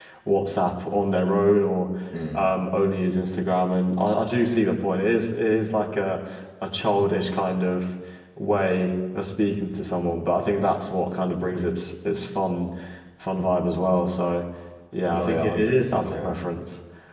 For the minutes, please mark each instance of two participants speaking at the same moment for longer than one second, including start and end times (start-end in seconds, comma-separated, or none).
15.1-16.4